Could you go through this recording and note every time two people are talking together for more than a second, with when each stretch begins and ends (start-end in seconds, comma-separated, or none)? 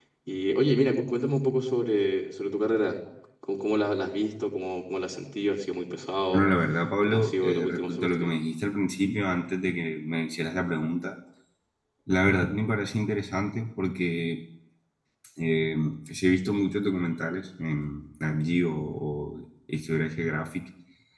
7.0-8.3